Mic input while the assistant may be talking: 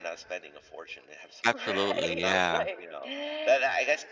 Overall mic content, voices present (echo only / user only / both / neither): both